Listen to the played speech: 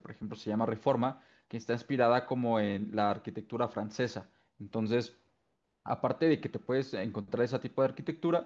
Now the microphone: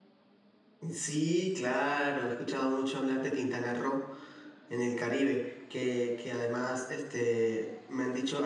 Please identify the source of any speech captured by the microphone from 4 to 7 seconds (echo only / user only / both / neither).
user only